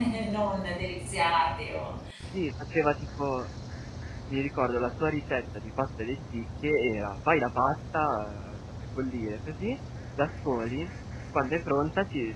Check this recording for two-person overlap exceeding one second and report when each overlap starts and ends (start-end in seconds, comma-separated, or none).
none